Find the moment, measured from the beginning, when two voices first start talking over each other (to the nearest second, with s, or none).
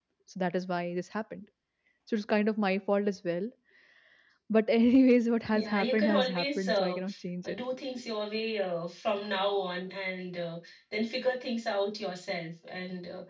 6 s